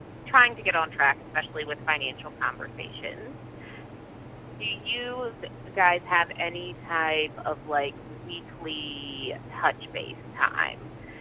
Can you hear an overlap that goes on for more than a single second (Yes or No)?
No